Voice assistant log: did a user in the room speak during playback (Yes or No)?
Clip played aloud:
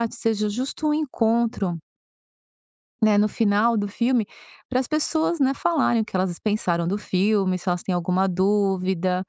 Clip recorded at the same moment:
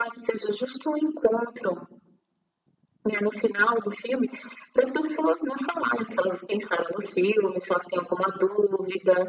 No